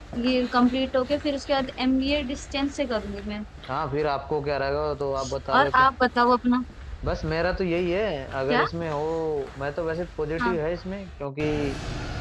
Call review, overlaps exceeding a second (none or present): none